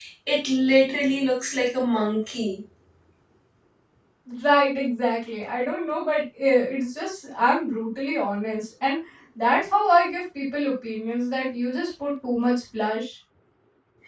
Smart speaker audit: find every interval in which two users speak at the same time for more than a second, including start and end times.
none

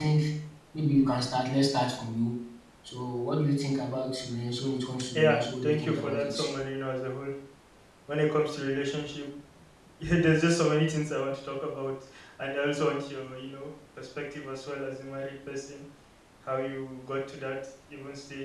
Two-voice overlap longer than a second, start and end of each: 5.1-6.4

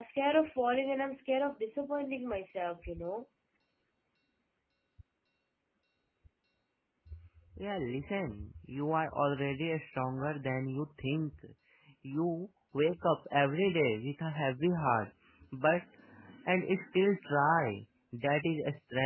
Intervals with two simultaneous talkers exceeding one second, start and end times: none

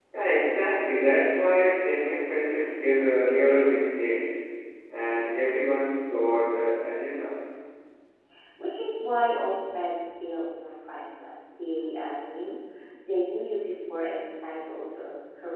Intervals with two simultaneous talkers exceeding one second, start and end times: none

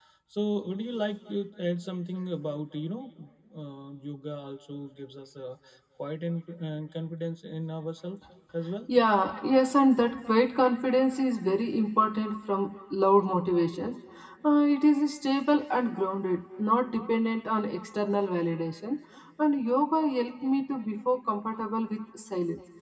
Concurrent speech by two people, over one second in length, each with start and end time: none

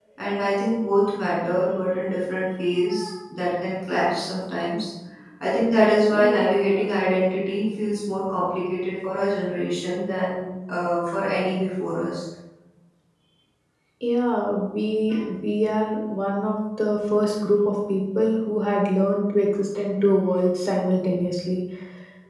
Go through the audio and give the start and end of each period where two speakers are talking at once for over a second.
none

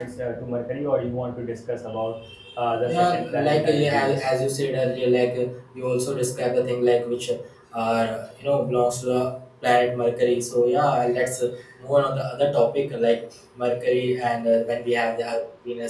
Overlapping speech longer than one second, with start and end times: 2.8-4.1

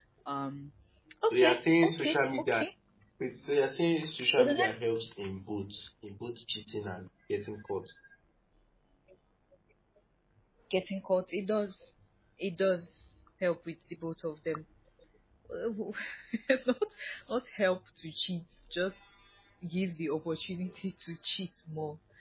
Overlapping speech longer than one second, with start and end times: 1.3-2.6

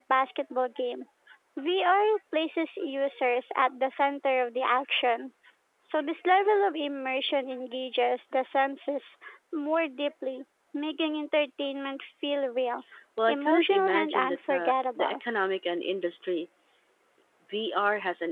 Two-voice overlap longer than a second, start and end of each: 13.3-15.2

